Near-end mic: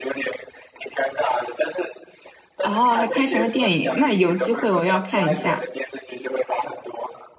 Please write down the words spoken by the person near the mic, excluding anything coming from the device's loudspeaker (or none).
哦，还拍成了电影，那有机会我要看一下，